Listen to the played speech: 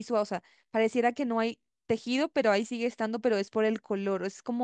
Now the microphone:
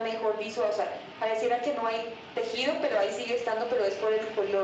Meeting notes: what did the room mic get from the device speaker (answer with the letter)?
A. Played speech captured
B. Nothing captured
A